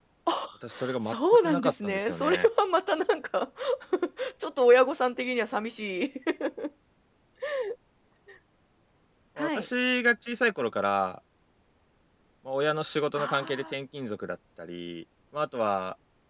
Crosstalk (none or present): present